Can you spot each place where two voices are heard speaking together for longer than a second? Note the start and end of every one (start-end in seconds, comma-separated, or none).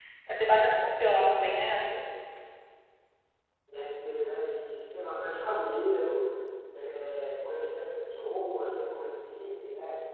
none